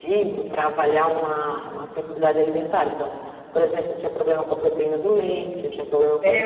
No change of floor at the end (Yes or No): No